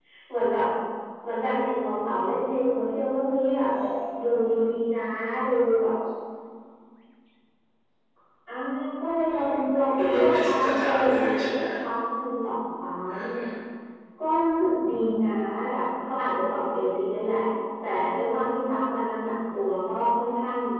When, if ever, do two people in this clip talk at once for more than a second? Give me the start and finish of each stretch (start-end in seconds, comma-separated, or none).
9.3-11.2